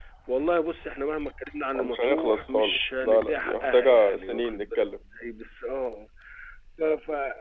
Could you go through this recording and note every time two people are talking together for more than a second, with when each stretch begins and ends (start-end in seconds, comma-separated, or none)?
1.8-4.9